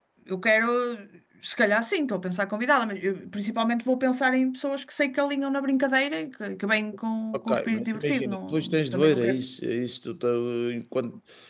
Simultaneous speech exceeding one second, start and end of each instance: 7.5-9.4

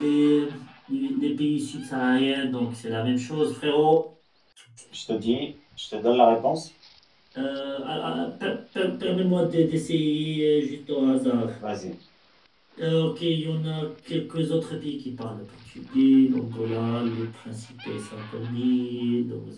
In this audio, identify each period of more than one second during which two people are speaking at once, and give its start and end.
none

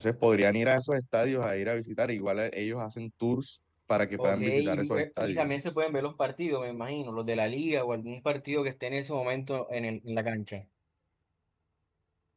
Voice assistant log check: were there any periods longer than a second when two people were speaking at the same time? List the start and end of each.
4.2-5.5

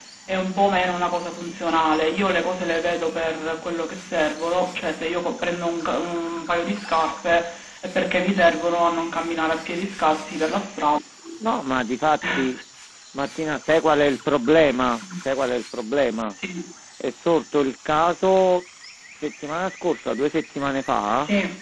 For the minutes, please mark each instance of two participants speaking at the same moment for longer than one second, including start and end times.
none

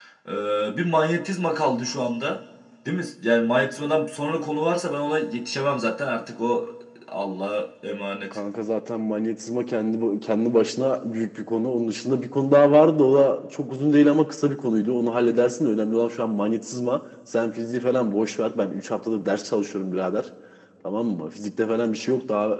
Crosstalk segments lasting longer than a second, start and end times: none

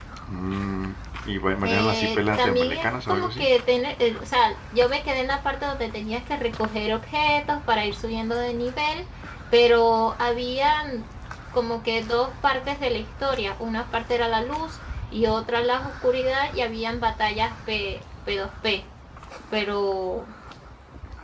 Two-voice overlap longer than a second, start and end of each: 1.6-3.5

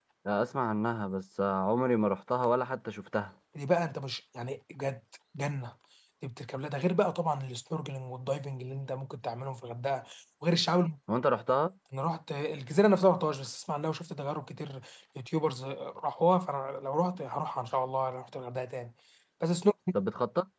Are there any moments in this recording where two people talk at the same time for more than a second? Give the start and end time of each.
none

